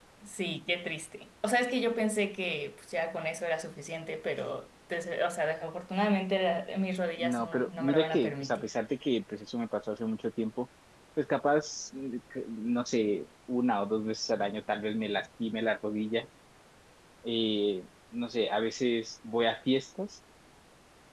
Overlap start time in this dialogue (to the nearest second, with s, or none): 7 s